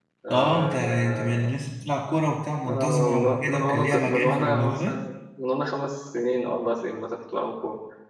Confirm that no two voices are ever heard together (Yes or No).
No